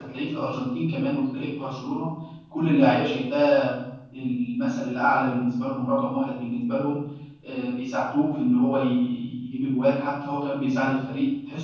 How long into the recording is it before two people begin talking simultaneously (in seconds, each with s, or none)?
none